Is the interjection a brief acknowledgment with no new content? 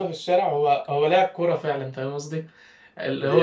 Yes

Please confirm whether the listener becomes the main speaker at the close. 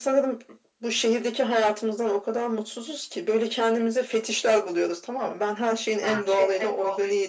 No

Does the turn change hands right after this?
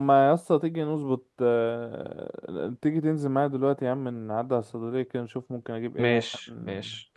Yes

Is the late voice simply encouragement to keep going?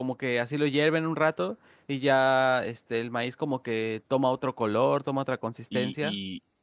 No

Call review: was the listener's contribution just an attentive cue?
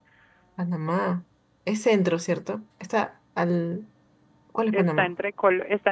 No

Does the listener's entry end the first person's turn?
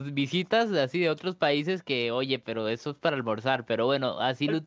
Yes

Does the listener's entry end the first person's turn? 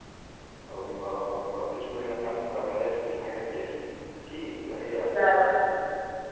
No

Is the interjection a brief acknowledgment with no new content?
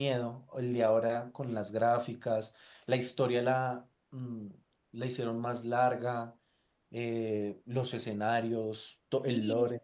No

